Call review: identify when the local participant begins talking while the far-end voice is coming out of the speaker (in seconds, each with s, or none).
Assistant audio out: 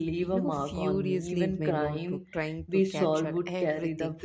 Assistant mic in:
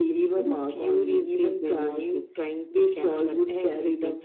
none